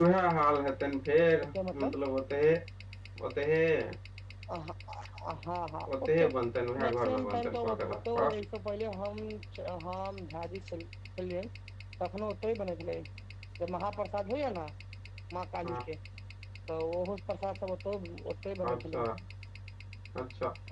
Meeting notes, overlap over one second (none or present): present